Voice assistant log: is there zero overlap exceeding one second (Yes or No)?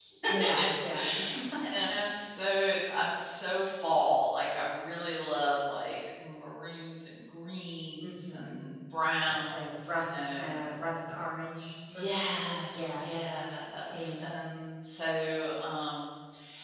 No